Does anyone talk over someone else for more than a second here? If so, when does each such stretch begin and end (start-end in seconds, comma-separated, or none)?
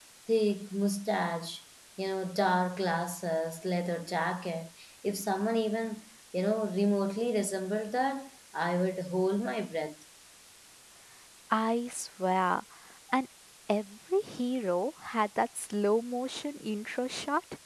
none